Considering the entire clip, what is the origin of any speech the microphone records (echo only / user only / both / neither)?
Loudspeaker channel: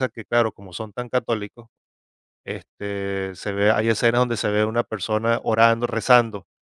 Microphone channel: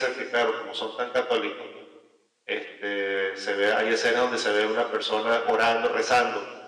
echo only